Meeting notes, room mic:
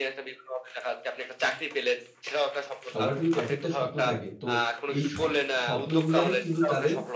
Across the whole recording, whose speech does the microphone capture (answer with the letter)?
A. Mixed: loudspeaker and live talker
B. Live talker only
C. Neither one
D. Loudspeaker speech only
A